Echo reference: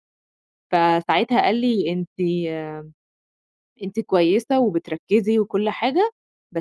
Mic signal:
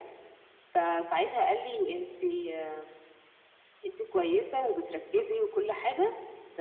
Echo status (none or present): present